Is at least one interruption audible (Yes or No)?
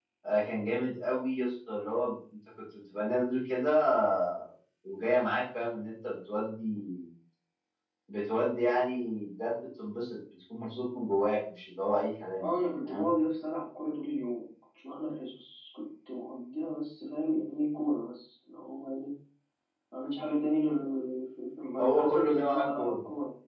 Yes